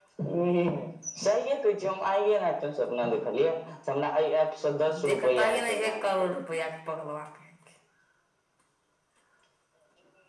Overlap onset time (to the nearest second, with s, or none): 5 s